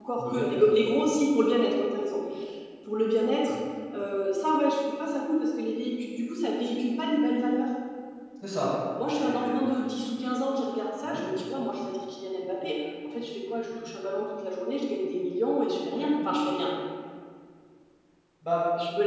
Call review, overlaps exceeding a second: none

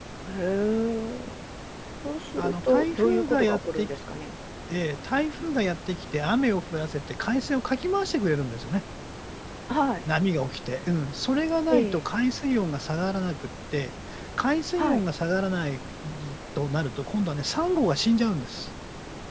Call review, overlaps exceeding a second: present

